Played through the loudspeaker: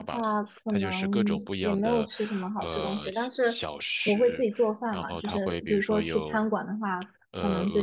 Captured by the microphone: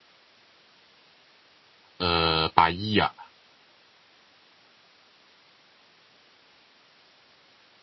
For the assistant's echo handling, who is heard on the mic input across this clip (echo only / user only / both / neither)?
user only